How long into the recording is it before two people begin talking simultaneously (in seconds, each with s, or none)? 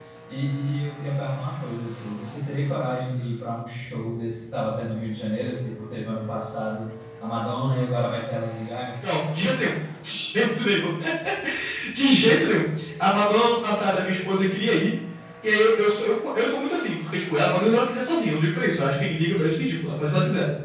none